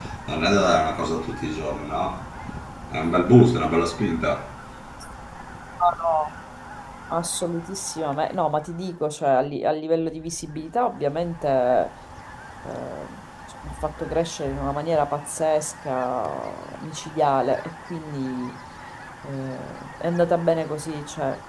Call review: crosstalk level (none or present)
none